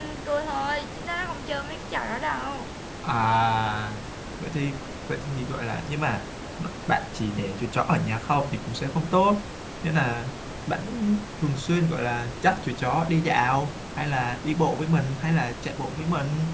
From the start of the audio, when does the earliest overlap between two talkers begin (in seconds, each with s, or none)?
none